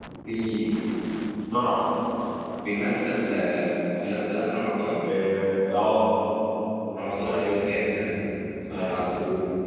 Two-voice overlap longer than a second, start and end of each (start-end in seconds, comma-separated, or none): none